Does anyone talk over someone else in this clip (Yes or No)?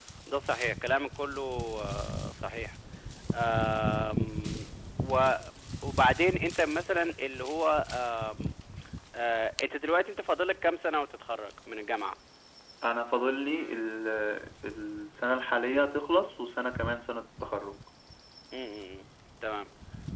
No